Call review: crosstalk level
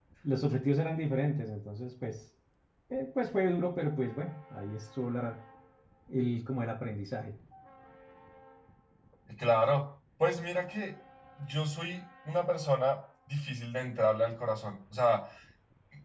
none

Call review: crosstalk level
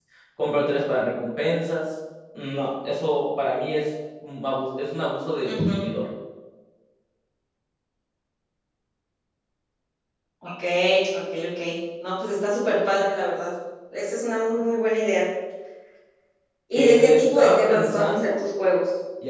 present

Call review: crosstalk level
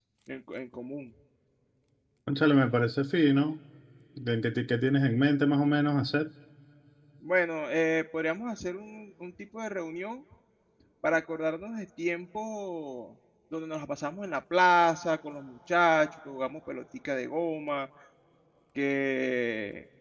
none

